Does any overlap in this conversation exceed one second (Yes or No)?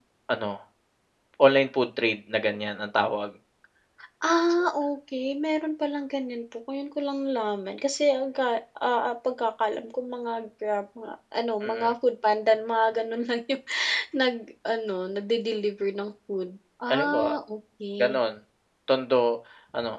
No